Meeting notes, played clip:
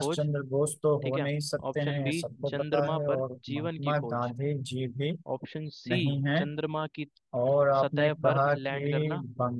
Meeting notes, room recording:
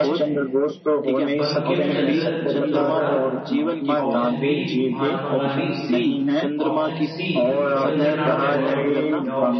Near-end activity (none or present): present